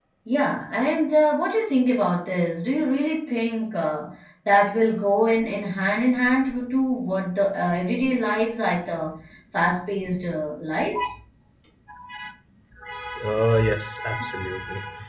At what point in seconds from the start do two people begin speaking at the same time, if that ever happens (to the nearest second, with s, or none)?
none